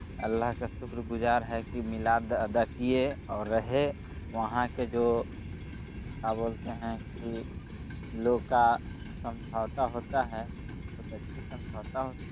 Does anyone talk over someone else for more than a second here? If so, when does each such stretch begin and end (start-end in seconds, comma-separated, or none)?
none